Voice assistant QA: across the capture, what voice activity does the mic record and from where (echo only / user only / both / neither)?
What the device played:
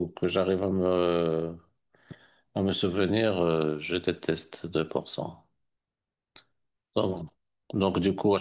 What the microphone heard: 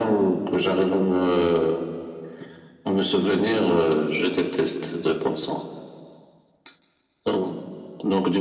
echo only